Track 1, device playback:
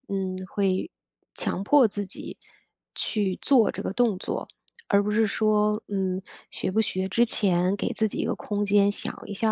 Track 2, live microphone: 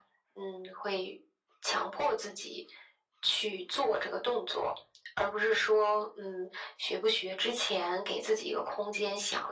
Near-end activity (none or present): none